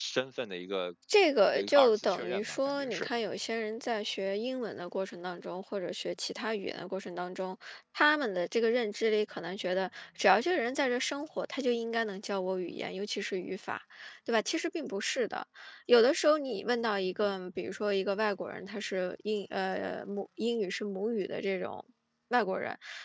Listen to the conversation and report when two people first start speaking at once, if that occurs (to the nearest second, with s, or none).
2 s